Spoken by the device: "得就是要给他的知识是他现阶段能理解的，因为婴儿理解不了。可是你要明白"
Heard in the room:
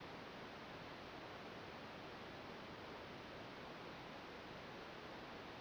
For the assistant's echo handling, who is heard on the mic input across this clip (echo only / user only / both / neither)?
neither